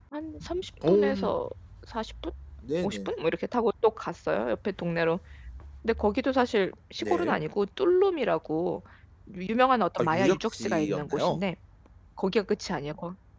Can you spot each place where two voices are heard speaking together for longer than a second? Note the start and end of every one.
10.0-11.4

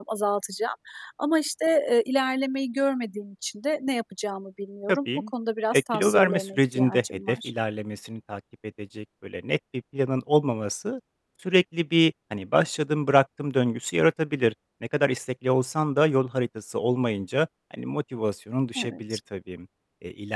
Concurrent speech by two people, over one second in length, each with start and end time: 5.8-7.5

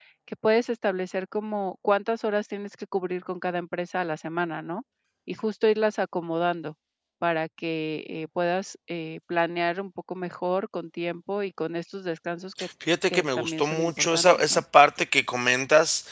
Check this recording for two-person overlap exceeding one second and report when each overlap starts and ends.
13.1-14.6

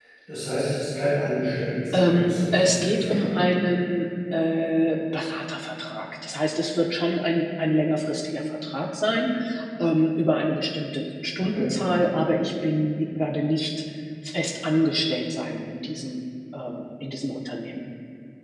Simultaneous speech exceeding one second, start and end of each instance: 1.9-3.5

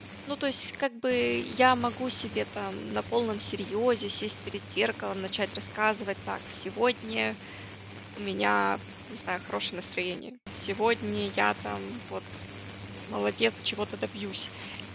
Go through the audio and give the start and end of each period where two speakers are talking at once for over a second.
none

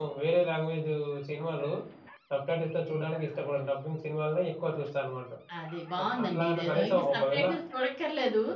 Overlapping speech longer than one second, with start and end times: 6.2-7.4

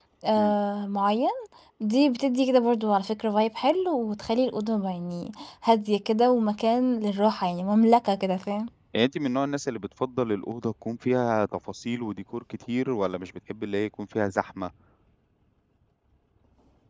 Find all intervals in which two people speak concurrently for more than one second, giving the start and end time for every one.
none

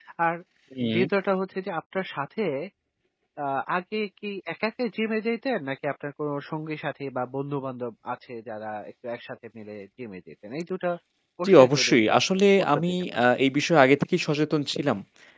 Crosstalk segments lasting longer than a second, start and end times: 11.4-13.3

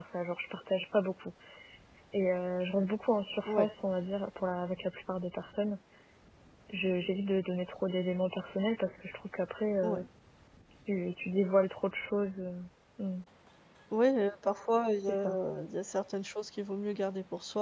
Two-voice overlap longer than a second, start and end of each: none

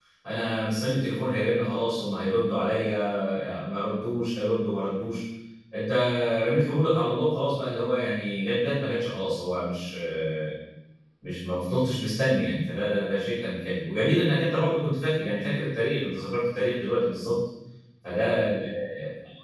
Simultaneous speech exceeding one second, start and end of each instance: none

